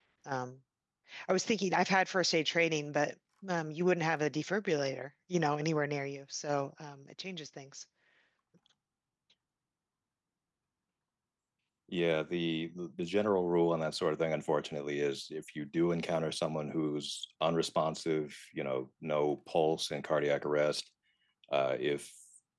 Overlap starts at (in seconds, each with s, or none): none